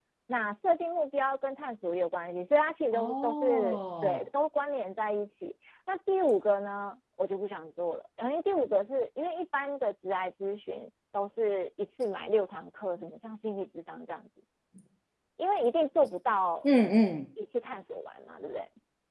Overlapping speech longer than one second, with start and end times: 2.9-4.2

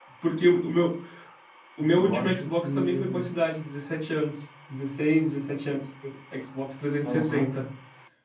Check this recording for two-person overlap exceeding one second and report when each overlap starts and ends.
2.0-3.2

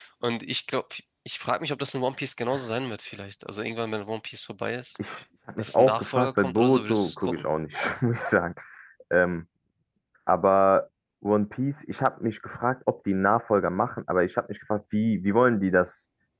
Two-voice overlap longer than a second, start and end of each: 5.6-7.4

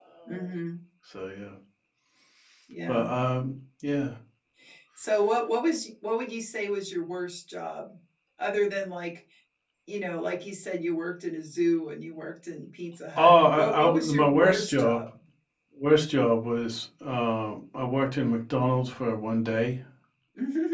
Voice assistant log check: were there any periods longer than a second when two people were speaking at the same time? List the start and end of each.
13.2-15.0

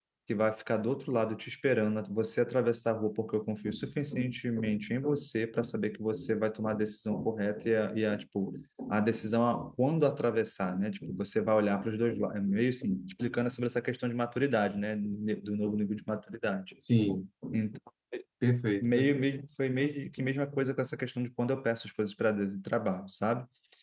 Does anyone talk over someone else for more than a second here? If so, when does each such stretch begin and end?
none

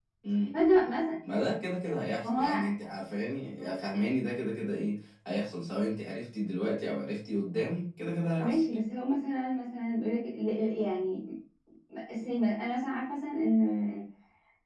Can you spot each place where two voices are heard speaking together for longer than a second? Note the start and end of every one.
none

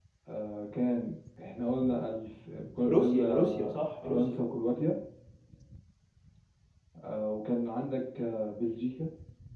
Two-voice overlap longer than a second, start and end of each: 2.9-4.4

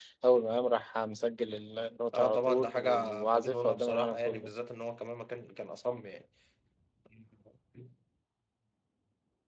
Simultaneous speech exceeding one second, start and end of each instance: 2.1-4.5

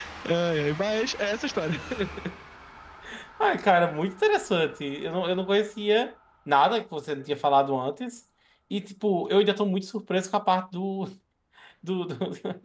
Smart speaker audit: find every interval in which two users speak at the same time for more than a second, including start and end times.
none

